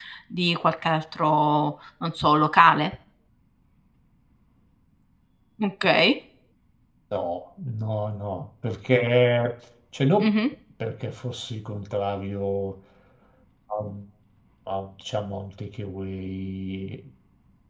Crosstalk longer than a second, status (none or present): none